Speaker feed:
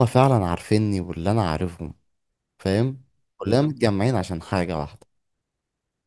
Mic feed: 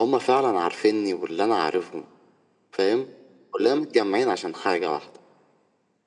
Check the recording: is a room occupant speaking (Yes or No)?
No